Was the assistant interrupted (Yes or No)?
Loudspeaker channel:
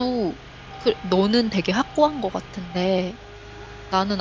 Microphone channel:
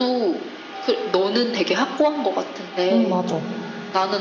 Yes